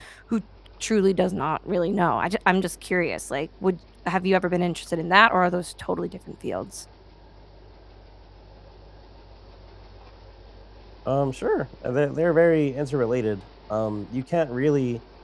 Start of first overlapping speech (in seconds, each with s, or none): none